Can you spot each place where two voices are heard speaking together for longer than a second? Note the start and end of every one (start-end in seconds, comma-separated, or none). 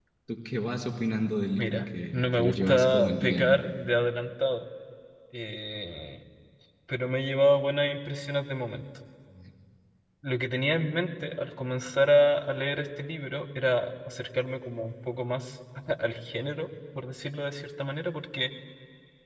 1.6-3.6